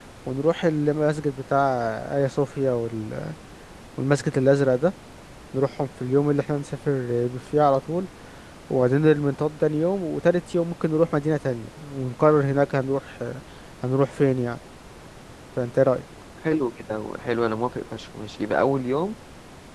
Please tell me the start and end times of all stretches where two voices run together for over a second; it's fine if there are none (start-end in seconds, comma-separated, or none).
none